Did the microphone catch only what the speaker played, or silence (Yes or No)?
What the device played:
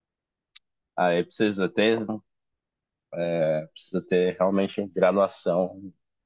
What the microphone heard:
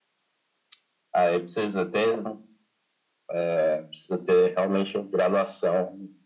Yes